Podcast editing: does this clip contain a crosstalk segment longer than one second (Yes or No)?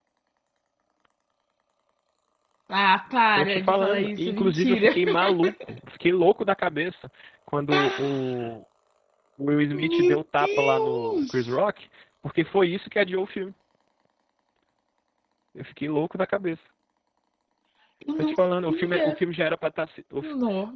Yes